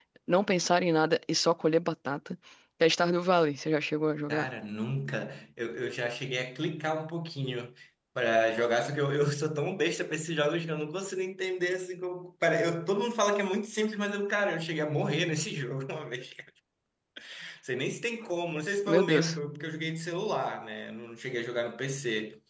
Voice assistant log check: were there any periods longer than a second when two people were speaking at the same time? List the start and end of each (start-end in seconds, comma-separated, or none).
none